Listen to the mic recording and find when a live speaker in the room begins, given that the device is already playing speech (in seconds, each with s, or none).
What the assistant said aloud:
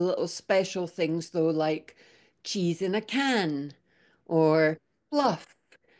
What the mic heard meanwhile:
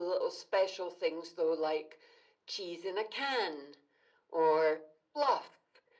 none